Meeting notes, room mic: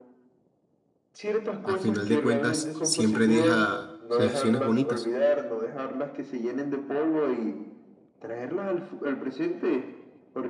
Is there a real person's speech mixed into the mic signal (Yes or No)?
Yes